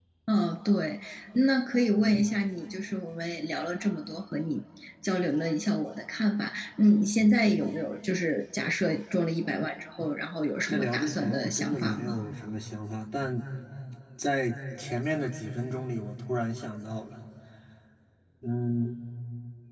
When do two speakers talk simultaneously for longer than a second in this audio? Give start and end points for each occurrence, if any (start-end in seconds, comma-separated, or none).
10.7-12.2